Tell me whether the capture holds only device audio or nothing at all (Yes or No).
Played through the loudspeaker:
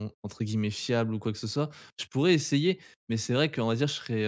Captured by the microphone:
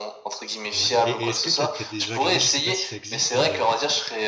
No